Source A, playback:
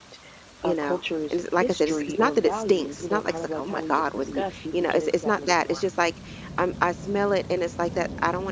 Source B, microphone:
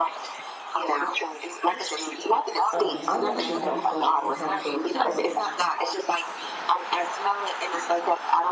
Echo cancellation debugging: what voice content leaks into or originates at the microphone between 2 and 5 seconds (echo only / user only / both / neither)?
both